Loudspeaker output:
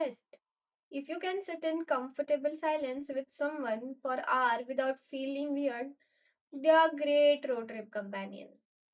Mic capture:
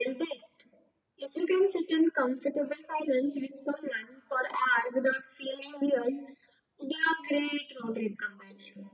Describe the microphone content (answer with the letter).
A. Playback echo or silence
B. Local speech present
A